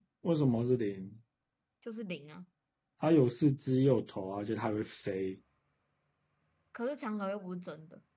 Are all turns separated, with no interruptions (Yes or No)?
Yes